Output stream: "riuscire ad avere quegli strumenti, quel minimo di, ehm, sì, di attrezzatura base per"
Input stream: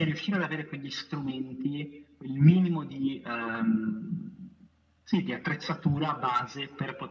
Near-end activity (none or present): none